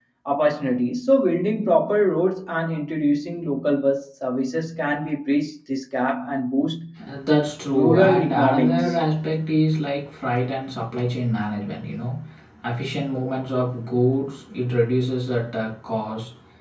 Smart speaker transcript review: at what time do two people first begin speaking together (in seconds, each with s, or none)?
7.7 s